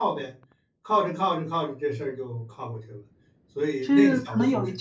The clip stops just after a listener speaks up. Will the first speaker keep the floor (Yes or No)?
No